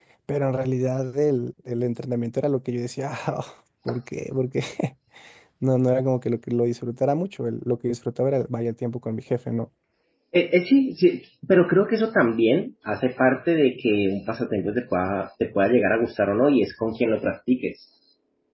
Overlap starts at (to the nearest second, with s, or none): none